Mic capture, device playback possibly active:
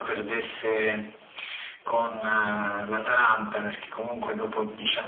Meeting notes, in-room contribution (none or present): none